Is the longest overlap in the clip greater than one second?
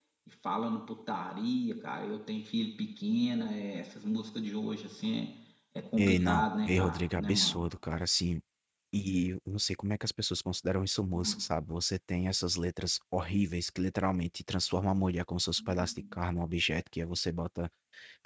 Yes, from 6.0 s

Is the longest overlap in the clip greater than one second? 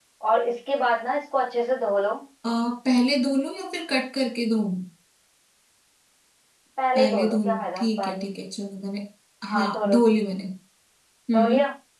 Yes, from 6.9 s

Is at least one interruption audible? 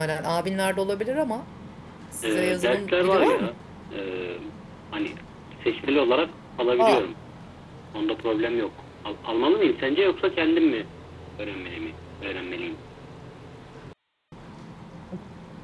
Yes, from 2.2 s

